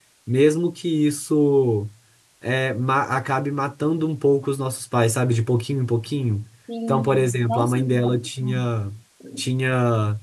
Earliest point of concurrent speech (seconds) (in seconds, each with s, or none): 6.9 s